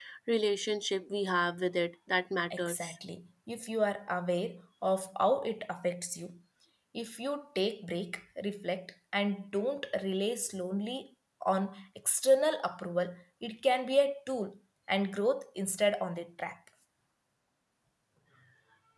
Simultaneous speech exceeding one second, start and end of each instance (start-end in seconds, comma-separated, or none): none